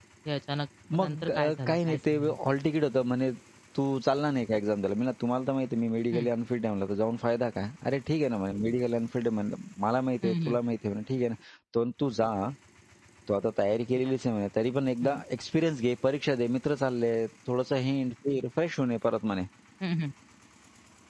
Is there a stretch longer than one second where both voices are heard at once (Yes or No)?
Yes